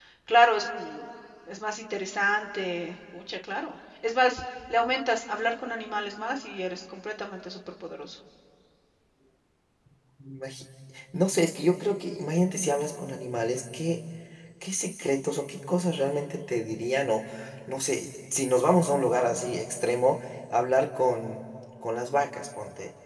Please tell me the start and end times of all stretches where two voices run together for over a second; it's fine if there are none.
none

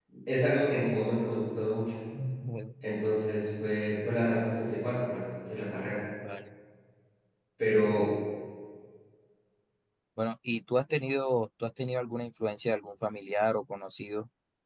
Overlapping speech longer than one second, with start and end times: none

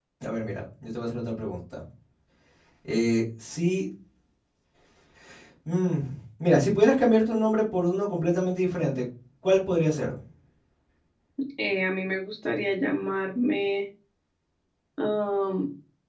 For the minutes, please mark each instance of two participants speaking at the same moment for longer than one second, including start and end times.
none

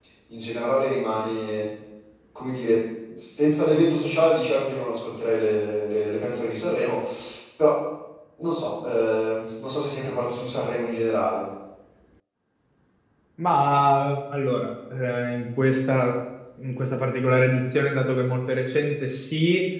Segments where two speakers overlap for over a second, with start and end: none

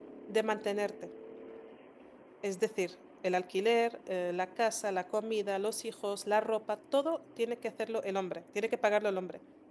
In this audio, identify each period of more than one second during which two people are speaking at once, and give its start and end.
none

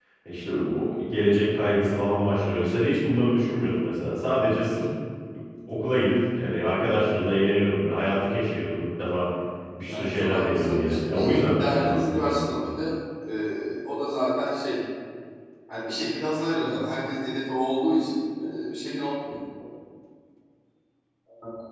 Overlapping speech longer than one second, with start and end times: 9.9-12.4

